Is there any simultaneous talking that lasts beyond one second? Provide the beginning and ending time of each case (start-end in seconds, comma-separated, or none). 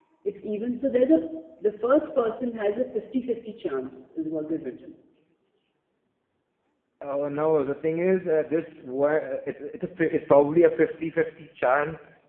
none